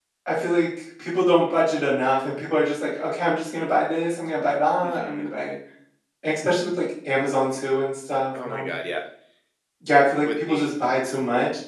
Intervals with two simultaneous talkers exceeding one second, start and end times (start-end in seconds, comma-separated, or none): none